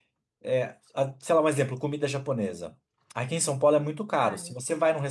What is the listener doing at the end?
listening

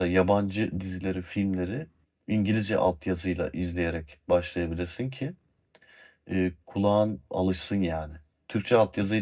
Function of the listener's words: listening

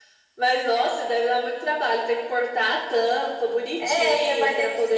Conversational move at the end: taking over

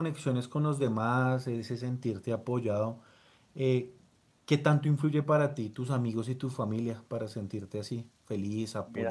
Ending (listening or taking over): taking over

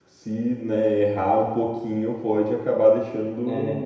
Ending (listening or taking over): taking over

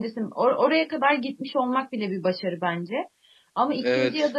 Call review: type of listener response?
listening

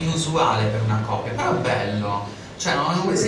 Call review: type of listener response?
listening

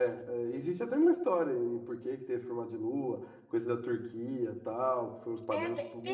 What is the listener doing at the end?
taking over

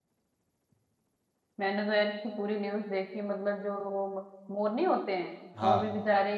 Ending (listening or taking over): listening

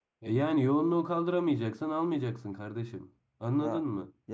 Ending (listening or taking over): taking over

